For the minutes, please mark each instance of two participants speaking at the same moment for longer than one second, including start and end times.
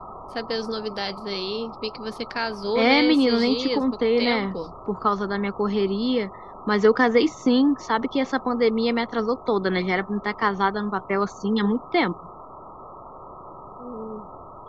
2.8-4.5

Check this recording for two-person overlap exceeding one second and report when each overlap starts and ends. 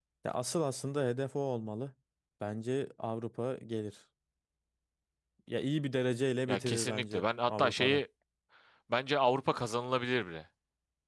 6.5-8.0

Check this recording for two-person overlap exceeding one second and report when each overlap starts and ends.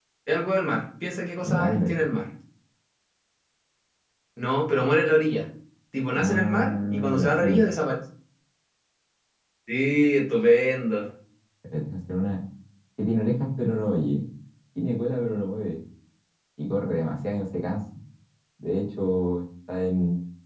6.2-7.6

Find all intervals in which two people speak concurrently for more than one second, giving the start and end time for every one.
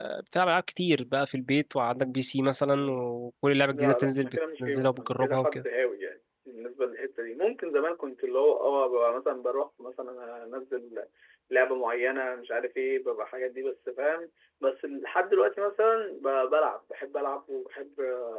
3.7-5.6

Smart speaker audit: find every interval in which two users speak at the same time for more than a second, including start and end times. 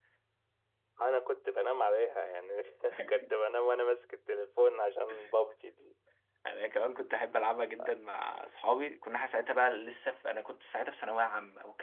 none

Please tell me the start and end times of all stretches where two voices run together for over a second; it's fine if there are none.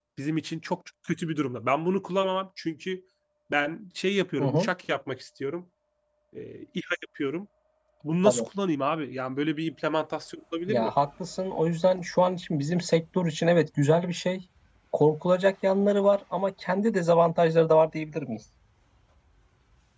none

